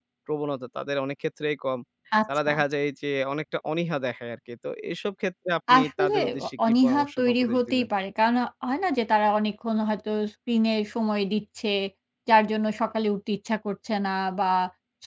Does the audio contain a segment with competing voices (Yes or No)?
Yes